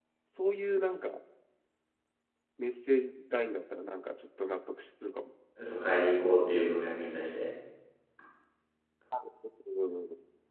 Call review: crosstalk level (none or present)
none